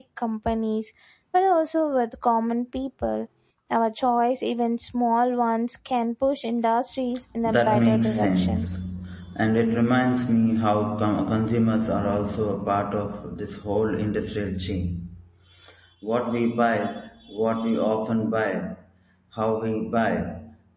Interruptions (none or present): present